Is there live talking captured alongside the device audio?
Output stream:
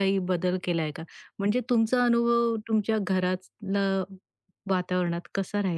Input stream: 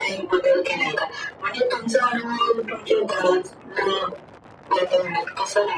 No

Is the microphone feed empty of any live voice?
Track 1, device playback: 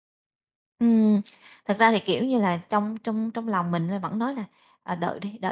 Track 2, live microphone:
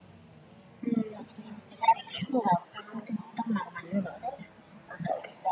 Yes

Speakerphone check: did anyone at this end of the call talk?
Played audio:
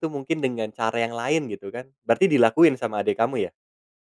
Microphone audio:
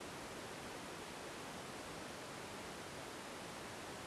No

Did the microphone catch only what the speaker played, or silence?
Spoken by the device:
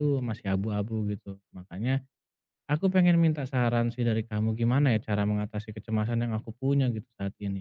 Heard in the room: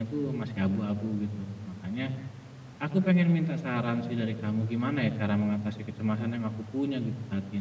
Yes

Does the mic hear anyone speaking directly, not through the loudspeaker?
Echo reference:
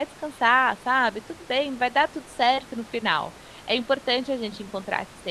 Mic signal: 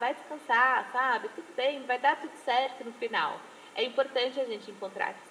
No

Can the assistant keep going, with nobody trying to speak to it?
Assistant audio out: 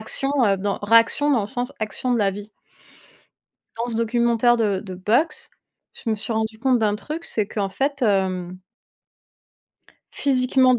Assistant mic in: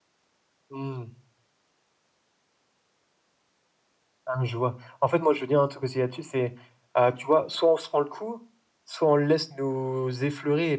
No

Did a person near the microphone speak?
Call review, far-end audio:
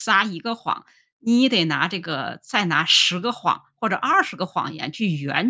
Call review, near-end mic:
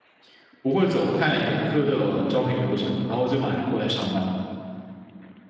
Yes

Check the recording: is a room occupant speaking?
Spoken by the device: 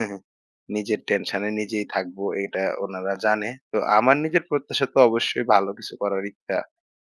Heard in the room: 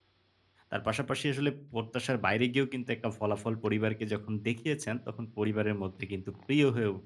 Yes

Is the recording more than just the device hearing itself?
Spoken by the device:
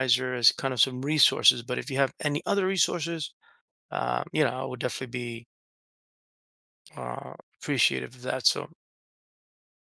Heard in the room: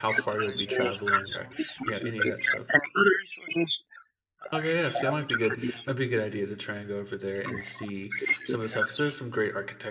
Yes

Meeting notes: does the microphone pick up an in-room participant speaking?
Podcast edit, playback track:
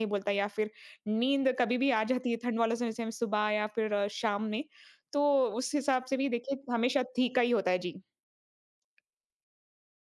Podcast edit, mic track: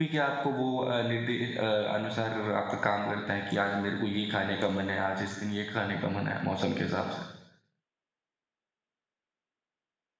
Yes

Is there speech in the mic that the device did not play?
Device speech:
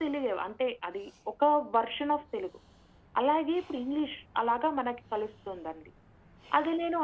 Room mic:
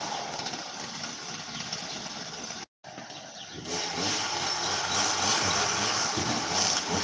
No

